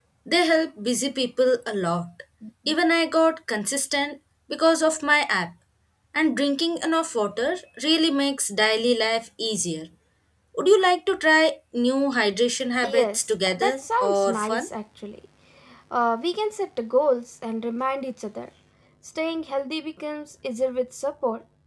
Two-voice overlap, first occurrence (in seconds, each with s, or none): 12.8 s